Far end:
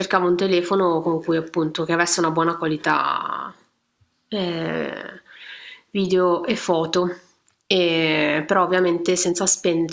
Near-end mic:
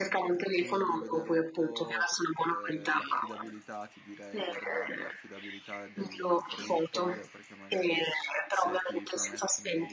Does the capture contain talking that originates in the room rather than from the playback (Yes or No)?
Yes